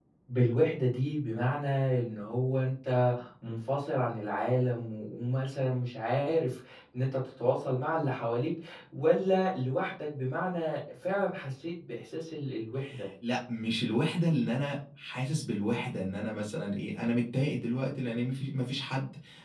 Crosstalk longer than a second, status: none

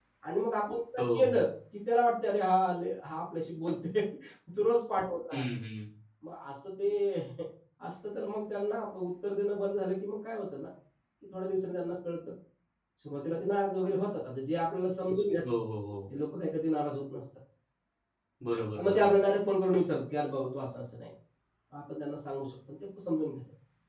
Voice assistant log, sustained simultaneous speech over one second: none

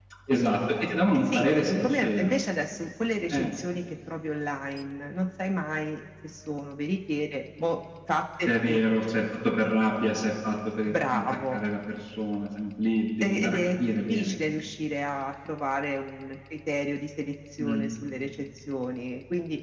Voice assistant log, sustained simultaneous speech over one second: present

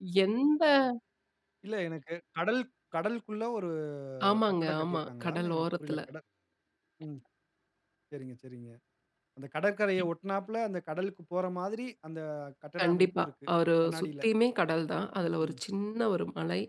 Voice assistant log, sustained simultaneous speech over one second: present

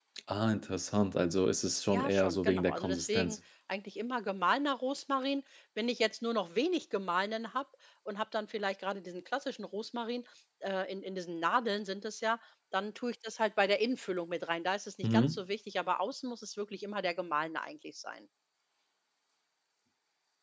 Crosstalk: present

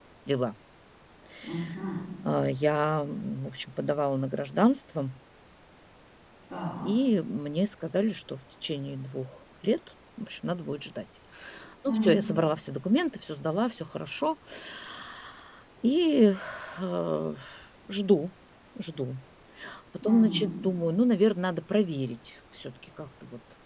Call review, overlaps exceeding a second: none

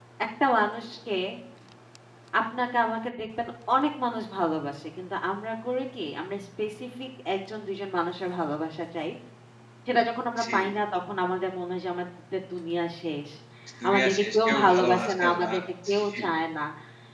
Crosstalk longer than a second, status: present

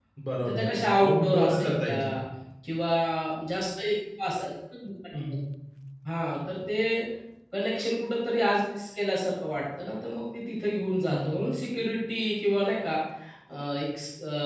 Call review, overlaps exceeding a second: present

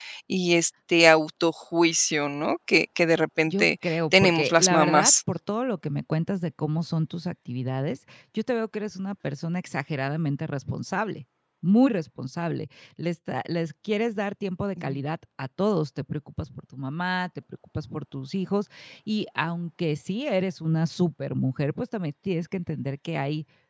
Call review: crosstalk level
present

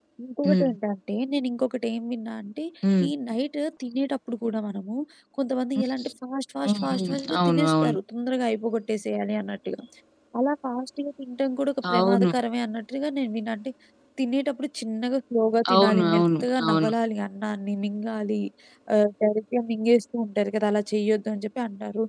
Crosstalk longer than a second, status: present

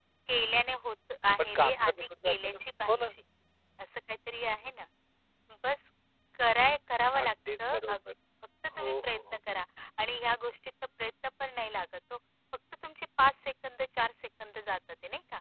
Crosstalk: present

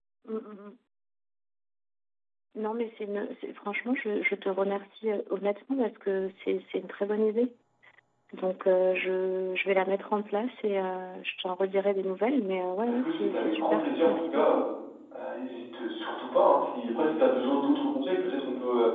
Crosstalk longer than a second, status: present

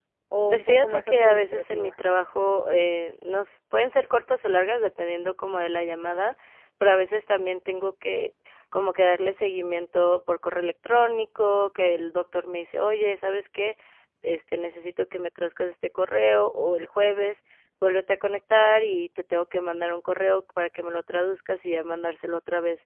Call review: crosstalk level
present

